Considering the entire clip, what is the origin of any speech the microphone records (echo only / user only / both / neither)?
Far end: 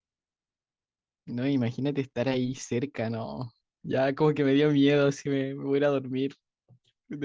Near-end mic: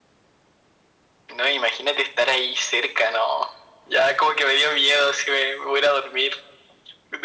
echo only